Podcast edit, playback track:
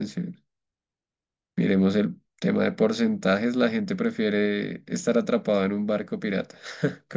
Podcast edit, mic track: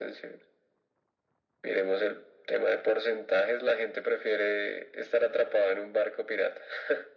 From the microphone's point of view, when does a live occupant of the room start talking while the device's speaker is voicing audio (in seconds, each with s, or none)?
none